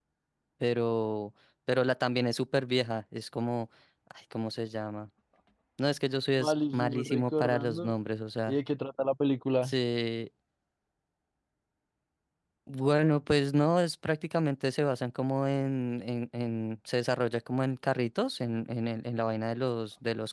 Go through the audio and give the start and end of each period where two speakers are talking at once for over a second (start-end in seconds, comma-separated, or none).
6.4-7.9